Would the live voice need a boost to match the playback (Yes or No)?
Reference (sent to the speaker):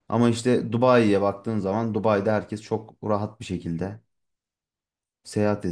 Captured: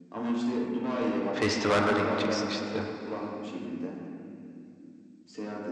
No